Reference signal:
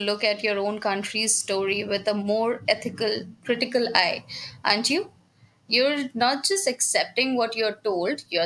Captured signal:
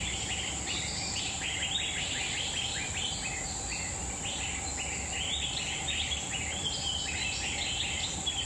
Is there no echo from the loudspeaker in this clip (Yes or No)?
Yes